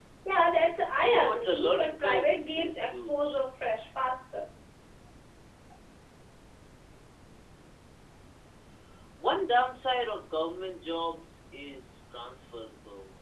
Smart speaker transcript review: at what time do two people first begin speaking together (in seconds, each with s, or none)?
1.1 s